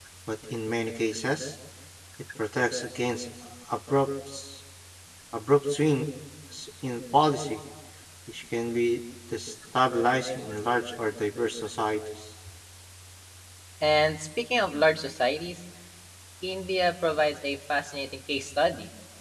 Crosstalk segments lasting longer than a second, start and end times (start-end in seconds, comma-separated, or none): none